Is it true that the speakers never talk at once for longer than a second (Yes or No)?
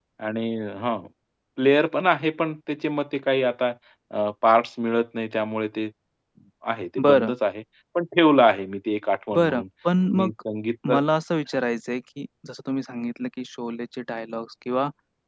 Yes